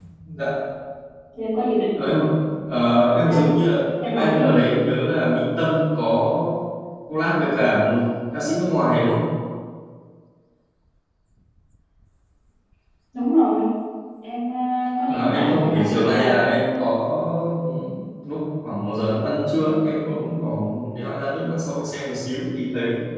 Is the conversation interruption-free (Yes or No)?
No